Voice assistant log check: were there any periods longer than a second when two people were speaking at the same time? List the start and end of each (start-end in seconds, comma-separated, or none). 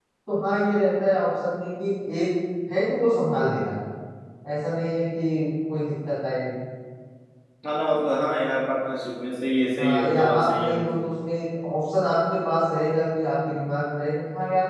9.8-11.0